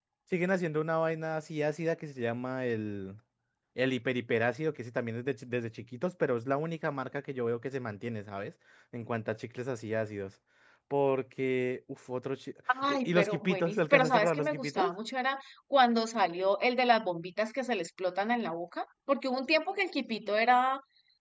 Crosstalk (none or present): present